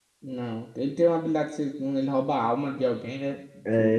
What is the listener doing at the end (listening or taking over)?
taking over